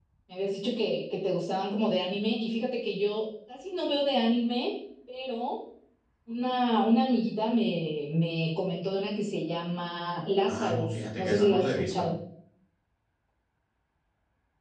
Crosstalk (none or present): present